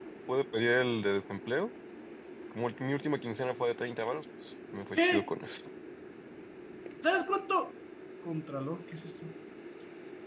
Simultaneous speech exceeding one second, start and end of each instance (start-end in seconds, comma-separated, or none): none